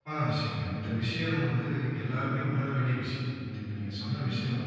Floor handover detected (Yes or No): No